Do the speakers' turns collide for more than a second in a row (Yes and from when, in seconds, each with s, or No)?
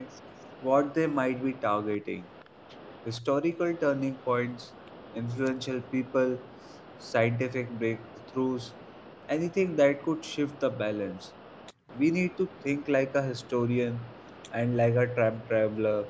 No